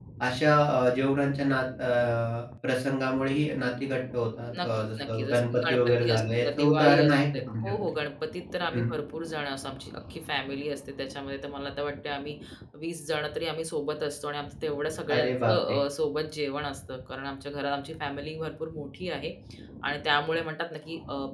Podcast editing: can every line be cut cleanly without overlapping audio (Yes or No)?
No